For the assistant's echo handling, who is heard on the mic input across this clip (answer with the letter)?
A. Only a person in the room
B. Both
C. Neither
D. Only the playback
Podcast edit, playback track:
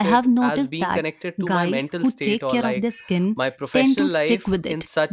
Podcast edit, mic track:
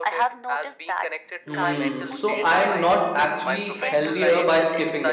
B